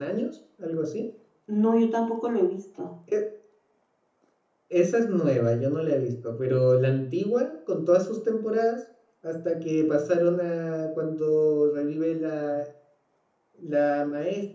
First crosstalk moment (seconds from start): none

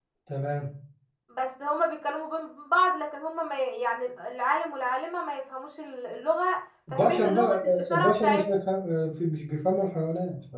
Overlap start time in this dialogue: 6.9 s

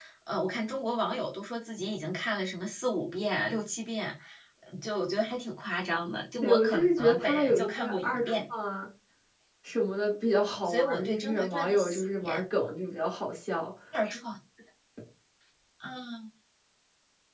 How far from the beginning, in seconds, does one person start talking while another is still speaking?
6.4 s

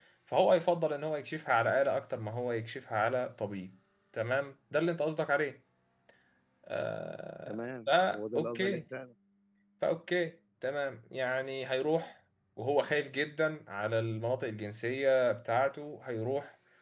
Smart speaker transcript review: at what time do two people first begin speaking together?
7.5 s

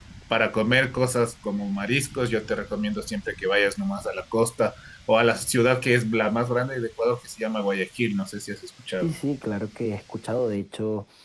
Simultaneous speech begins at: none

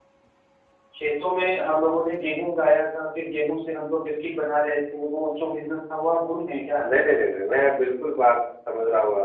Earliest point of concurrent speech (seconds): none

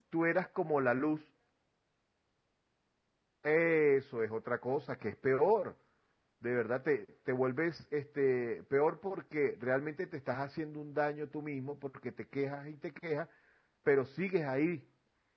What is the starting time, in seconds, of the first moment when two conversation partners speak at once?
none

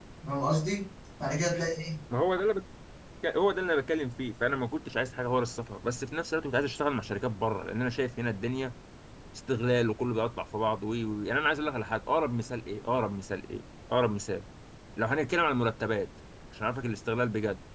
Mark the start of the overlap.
none

